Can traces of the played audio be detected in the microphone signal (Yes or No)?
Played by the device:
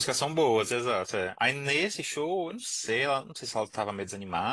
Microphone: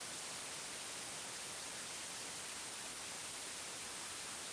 No